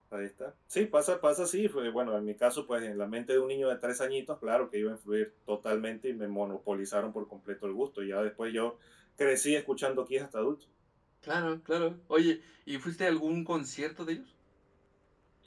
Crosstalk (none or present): none